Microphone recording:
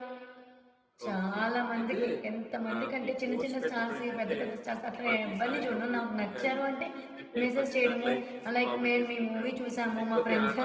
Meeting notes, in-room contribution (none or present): present